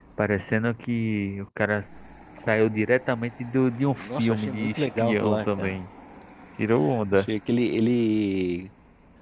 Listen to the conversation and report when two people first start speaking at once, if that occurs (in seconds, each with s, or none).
4.0 s